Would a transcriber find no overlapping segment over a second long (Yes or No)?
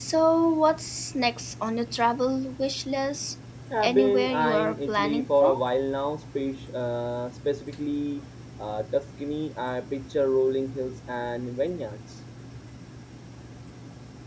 No